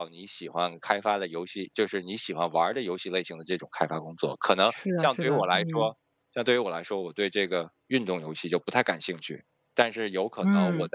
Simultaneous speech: Yes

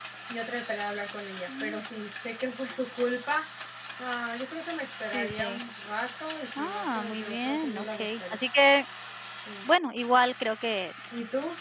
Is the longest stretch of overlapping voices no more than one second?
No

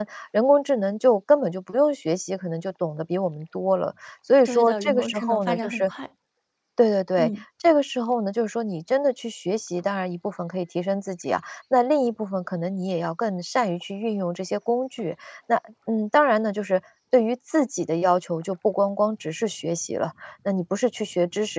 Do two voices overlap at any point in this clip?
Yes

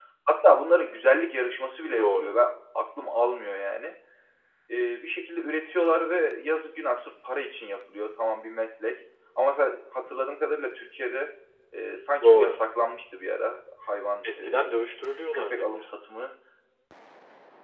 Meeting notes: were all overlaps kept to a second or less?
Yes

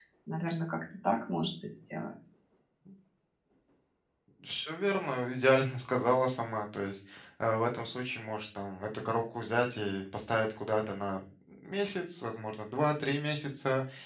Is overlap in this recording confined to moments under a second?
Yes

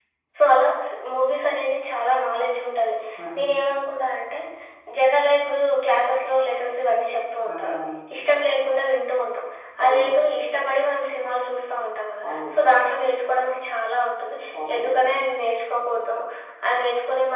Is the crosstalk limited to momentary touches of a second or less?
Yes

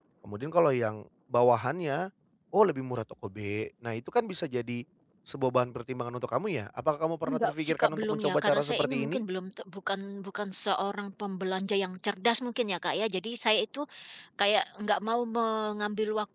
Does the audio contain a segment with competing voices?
Yes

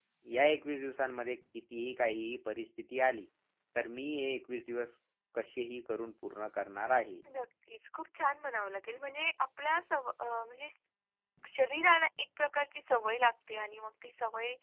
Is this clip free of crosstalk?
Yes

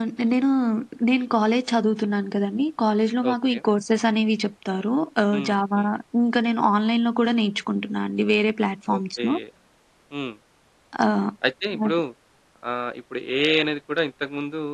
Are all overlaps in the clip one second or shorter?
Yes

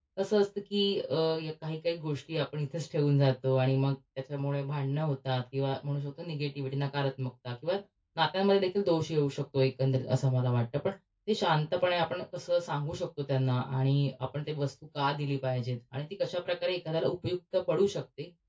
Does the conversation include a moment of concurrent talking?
No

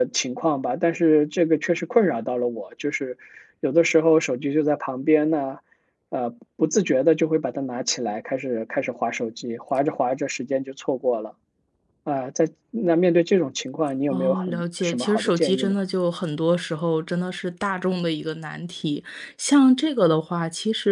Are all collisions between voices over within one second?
No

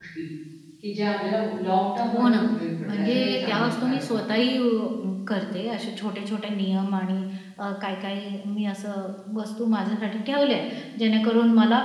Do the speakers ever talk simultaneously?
Yes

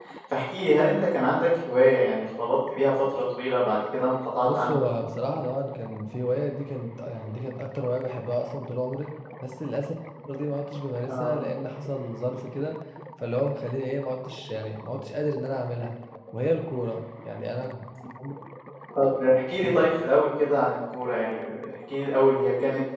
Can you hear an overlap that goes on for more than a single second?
No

